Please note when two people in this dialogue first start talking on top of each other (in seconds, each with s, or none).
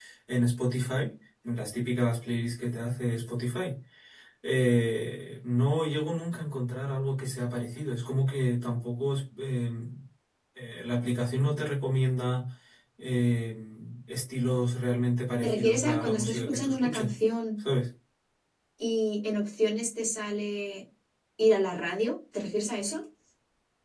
15.4 s